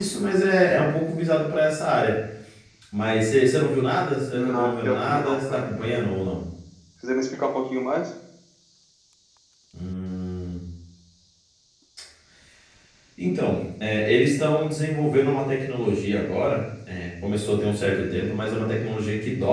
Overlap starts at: 4.3 s

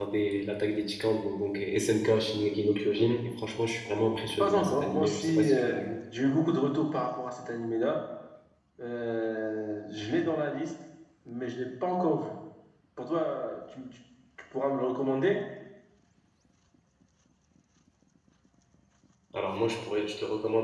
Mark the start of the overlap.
4.4 s

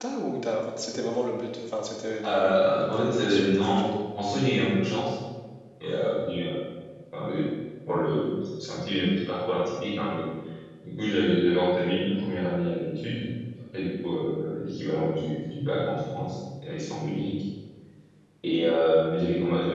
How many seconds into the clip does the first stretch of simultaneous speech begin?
2.2 s

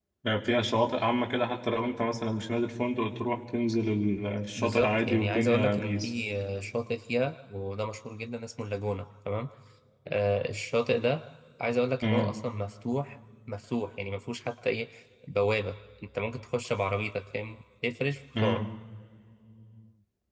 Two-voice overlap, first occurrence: 4.6 s

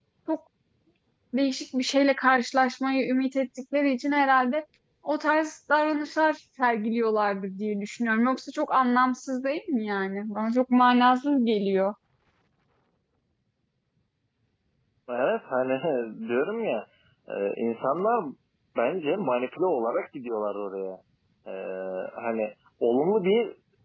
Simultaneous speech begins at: none

